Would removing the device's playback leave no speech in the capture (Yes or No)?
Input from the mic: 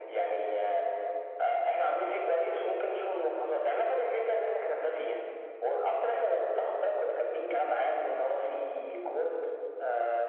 Yes